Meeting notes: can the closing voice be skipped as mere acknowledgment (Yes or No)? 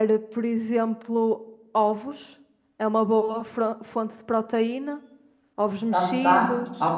No